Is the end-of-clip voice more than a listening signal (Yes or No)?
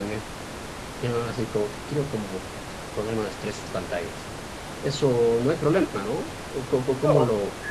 Yes